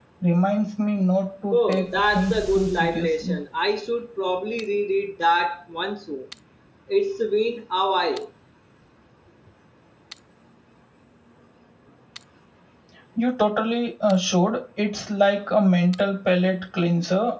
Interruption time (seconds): 1.5 s

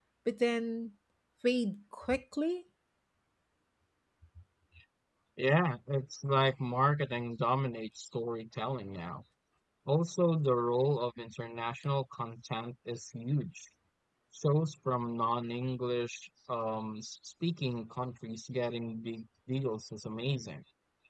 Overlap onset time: none

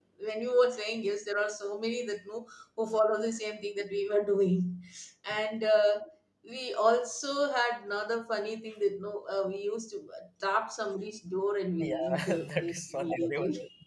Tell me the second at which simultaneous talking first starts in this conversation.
11.8 s

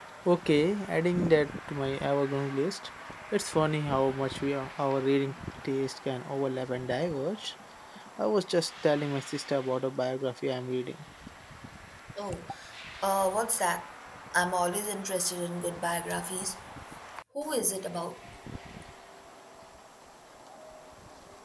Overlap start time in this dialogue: none

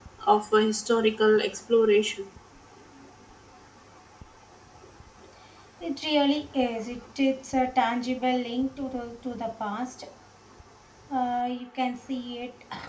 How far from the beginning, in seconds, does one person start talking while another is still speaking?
none

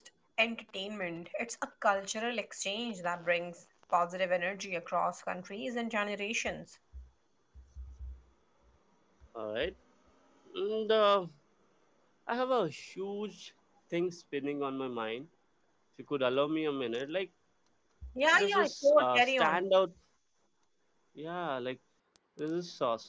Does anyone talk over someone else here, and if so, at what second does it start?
18.3 s

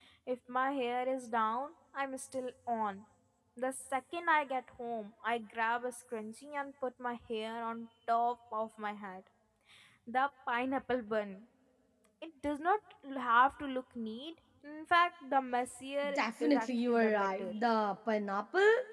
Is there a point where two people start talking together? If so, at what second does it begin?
16.0 s

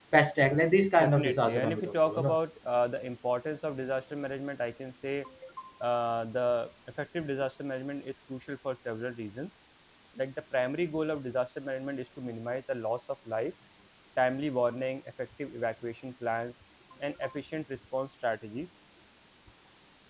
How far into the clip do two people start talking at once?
1.0 s

